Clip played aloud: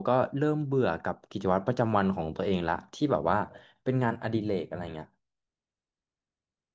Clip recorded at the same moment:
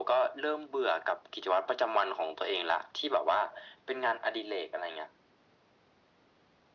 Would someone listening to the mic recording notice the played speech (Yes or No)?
Yes